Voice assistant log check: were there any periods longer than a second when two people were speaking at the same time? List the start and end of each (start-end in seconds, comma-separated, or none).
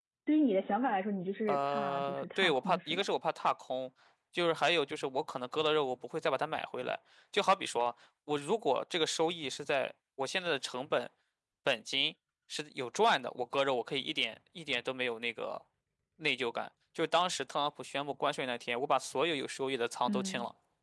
1.5-3.0